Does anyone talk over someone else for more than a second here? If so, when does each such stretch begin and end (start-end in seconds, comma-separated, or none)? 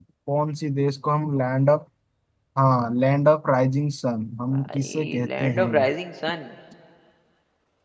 4.5-5.9